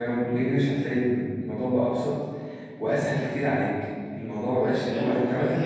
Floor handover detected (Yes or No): Yes